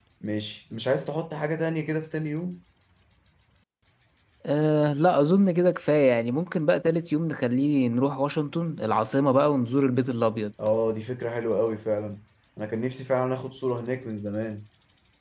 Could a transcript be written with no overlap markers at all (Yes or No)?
Yes